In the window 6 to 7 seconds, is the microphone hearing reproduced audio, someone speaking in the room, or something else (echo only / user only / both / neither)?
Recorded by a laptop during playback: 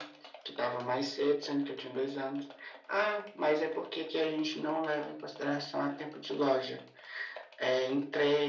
echo only